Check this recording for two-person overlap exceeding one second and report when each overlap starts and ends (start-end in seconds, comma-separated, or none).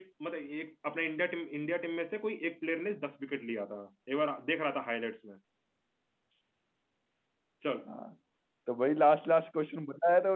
none